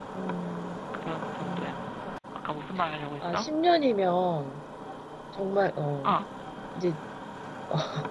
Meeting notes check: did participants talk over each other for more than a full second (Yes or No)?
No